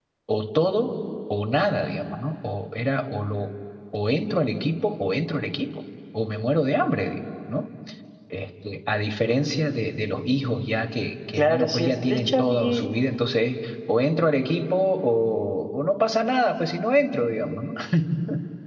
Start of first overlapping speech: 11.3 s

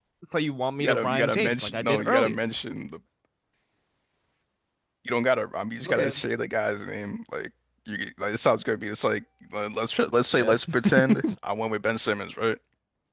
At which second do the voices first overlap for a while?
0.8 s

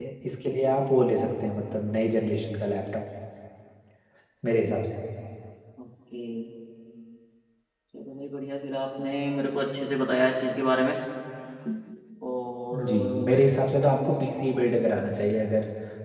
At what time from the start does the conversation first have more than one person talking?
12.9 s

